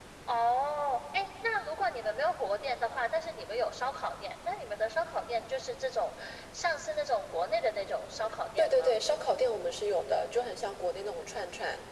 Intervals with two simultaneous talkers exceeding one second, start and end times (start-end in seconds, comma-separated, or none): none